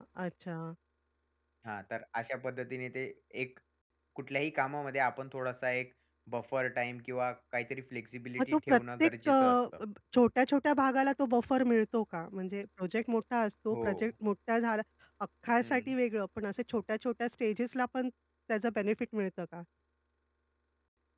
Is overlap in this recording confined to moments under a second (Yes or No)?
No